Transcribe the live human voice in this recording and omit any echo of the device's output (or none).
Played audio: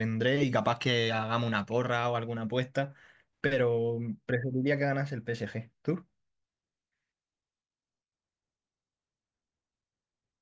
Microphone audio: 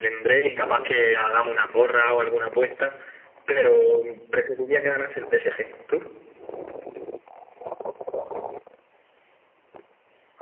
none